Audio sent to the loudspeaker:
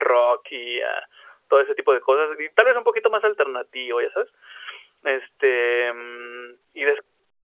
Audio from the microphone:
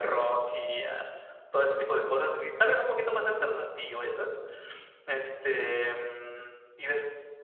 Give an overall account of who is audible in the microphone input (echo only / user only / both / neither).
echo only